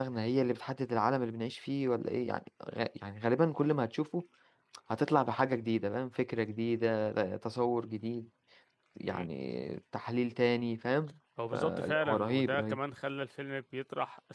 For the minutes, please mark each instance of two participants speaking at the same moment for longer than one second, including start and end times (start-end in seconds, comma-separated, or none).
11.5-12.8